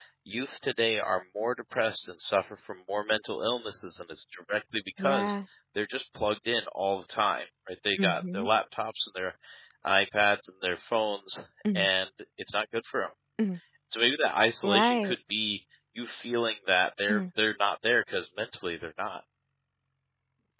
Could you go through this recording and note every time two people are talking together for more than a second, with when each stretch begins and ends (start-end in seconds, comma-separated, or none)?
none